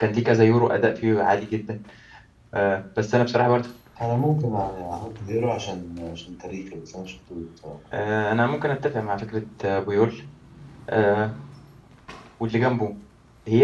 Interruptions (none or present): none